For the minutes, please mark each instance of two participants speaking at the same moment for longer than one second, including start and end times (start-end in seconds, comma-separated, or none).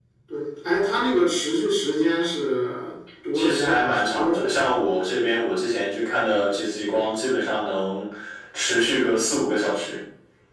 3.3-4.7